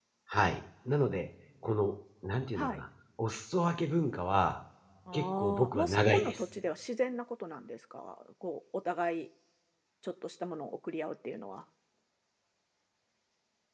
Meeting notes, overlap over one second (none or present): present